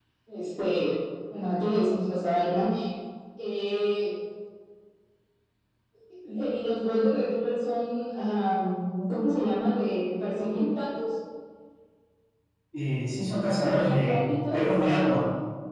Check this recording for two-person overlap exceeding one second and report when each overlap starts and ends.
13.3-14.6

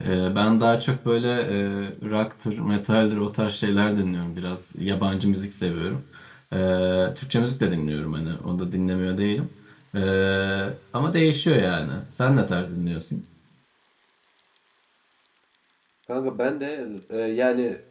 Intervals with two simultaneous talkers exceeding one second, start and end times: none

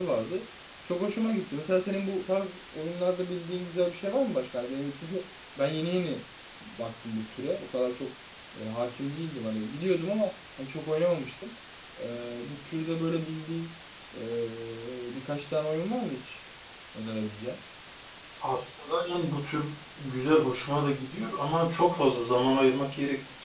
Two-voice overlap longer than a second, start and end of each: none

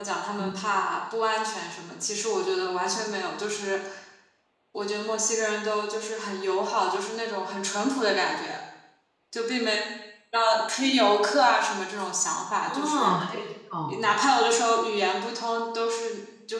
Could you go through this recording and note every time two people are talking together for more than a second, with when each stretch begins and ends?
none

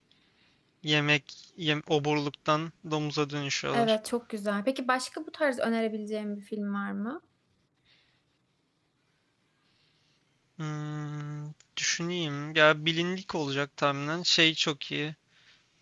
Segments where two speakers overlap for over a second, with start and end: none

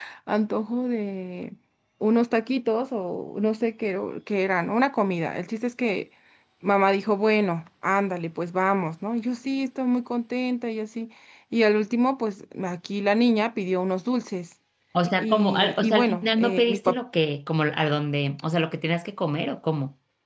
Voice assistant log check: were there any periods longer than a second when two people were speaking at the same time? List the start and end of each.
15.2-16.8

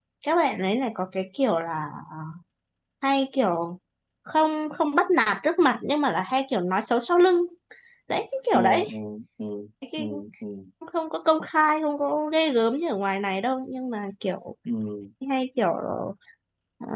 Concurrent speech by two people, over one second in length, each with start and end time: none

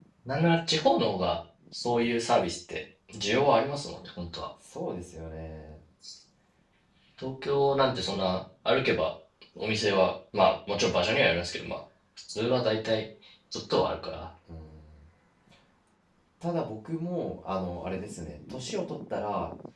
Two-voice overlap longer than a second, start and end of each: none

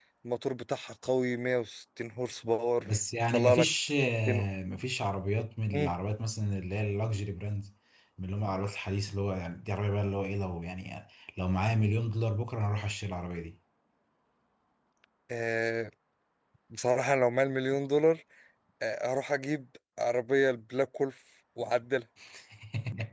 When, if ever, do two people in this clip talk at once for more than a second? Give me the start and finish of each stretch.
none

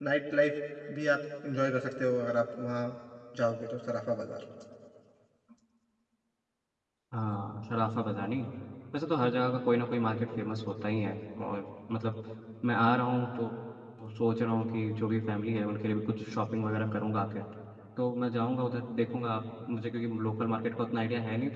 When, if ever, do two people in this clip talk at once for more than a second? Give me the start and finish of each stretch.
none

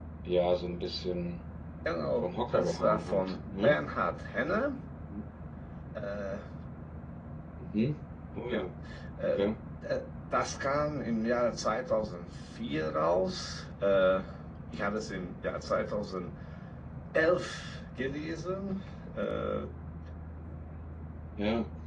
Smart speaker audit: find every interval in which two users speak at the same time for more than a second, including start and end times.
2.2-3.8

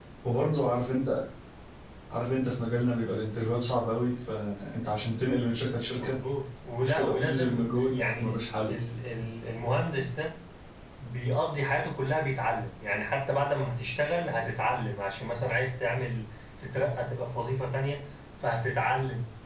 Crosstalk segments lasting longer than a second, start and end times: 6.8-8.3

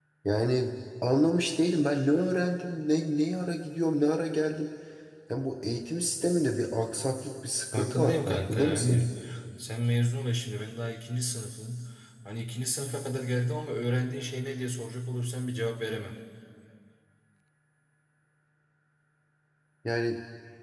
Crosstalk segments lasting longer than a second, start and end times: 7.7-9.0

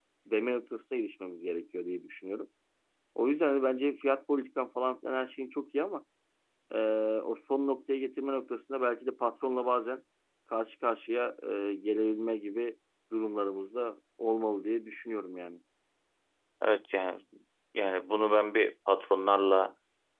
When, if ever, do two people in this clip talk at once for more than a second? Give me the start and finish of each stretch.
none

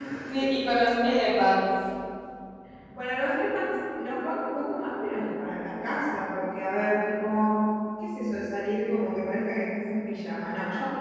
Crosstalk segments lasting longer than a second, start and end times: none

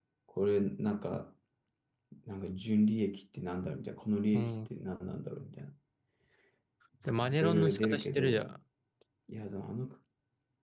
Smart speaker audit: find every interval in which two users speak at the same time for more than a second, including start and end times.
7.2-8.6

